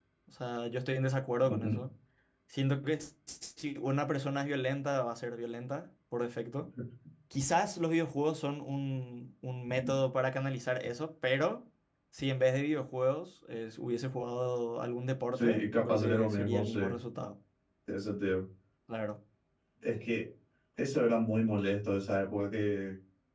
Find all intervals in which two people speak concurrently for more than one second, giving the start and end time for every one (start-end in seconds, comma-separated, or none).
15.3-16.8